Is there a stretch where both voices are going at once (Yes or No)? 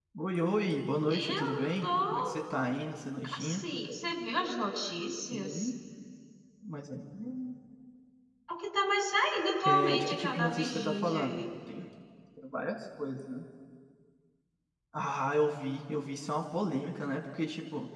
Yes